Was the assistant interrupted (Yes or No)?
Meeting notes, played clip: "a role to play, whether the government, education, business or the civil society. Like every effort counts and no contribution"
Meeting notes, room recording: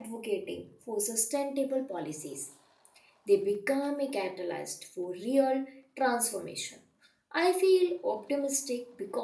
Yes